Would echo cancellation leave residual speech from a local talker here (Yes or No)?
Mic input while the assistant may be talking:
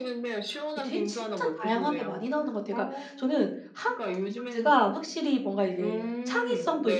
Yes